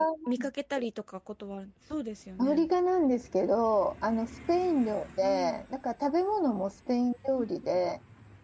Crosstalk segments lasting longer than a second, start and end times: none

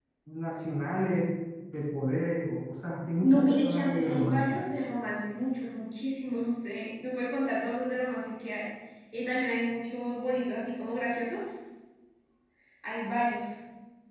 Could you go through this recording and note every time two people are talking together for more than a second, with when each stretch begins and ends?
3.2-4.4

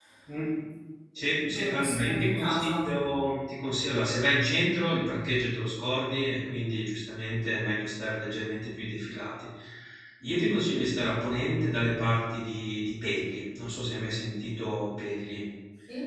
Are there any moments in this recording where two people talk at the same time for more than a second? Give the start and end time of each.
1.4-2.8

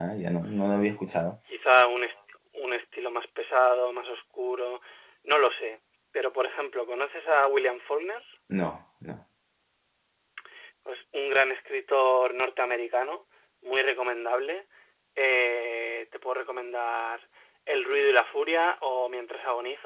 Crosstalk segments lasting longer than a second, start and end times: none

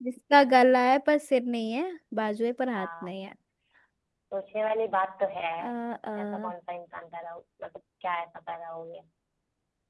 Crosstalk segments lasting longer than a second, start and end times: none

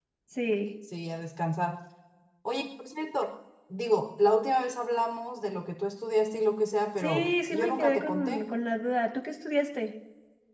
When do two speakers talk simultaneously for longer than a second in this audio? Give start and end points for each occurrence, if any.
7.0-8.5

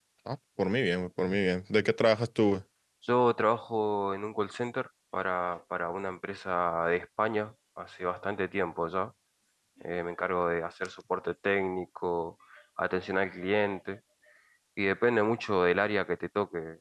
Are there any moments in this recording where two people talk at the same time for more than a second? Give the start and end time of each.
none

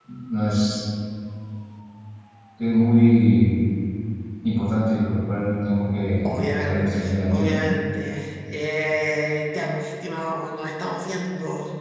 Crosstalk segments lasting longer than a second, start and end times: 6.2-7.5

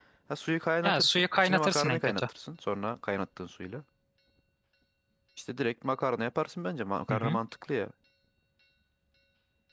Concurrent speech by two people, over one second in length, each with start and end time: 0.8-2.2

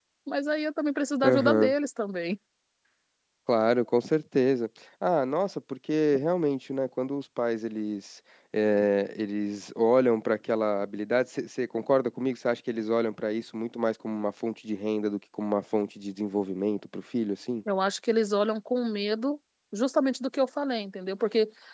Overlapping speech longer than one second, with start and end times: none

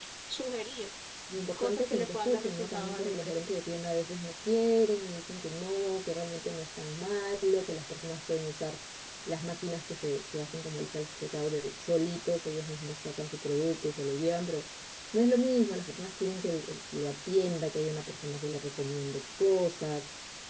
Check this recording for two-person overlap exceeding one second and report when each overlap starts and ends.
1.6-3.4

